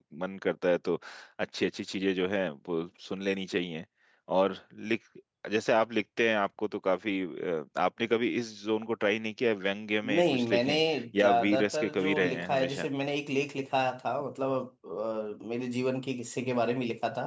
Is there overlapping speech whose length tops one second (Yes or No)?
Yes